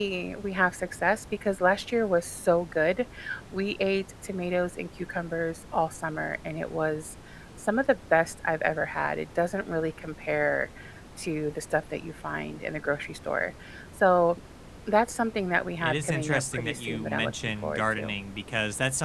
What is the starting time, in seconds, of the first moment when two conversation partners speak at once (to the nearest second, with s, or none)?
16 s